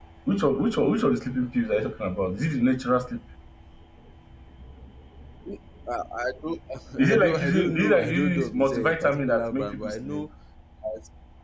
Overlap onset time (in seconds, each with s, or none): 7.1 s